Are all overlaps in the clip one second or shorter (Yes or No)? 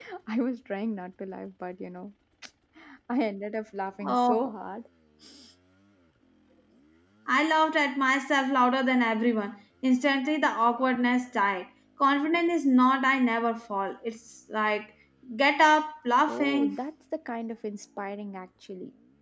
Yes